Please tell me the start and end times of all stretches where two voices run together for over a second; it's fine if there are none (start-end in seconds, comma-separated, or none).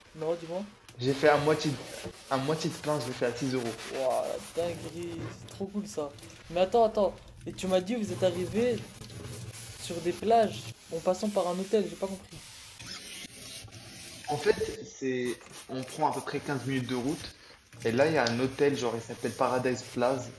none